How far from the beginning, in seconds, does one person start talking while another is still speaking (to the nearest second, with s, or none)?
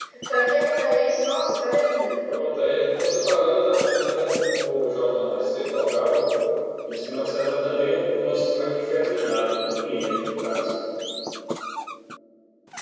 none